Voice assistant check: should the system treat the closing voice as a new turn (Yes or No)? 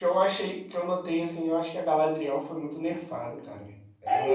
Yes